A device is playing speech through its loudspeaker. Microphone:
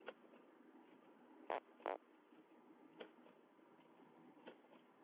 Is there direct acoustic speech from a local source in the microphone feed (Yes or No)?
No